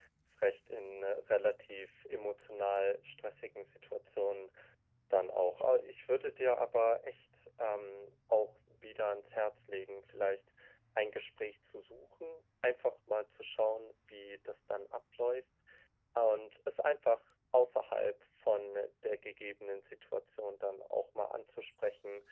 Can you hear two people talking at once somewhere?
No

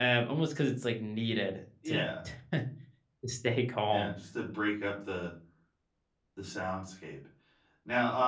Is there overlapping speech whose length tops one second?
No

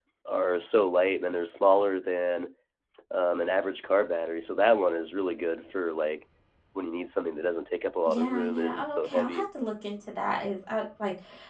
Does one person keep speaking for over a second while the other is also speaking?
Yes, from 8.1 s

